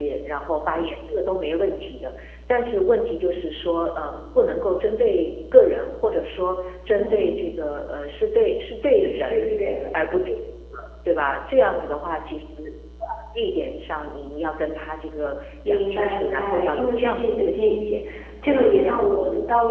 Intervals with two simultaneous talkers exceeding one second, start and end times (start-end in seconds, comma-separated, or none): 15.6-18.0